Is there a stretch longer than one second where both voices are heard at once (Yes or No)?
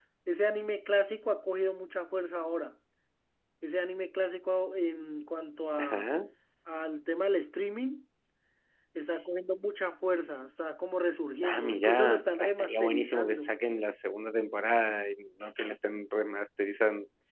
Yes